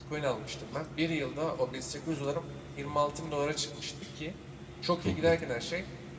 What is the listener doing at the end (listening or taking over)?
listening